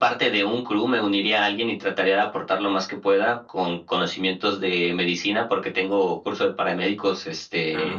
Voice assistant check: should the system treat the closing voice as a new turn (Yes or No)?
No